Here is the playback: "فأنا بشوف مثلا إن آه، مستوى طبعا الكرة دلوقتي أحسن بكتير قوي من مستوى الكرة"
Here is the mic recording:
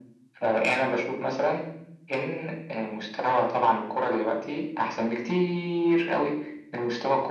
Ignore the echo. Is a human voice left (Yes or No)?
No